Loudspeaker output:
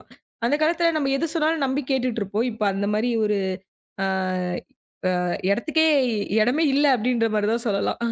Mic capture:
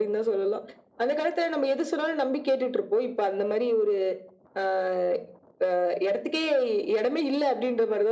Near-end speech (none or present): none